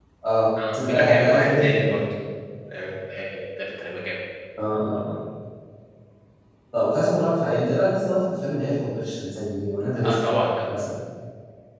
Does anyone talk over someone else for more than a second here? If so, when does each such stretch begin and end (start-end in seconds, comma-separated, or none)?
0.7-2.0